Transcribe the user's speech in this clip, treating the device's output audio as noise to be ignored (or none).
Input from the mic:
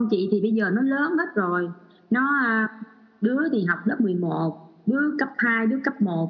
none